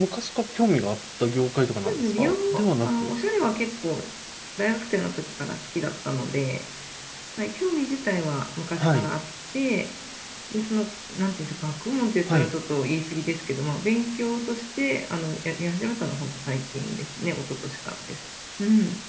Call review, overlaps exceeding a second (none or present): present